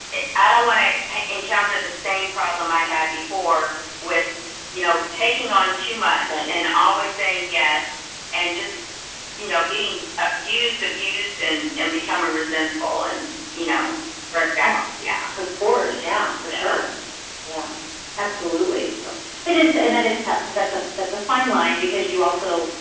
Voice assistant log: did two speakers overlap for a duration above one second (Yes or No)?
No